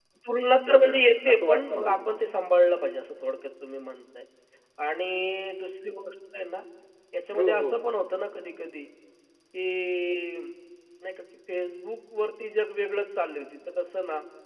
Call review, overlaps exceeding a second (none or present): present